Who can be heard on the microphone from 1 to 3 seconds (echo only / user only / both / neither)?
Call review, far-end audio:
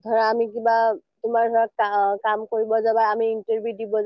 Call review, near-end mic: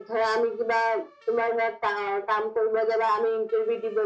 echo only